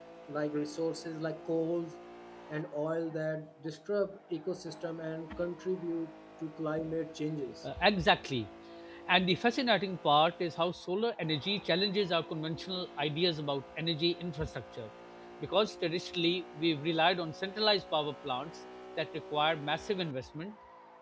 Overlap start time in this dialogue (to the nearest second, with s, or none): none